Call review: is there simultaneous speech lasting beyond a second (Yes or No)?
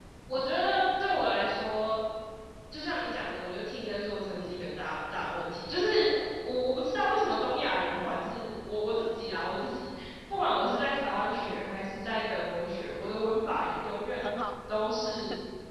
No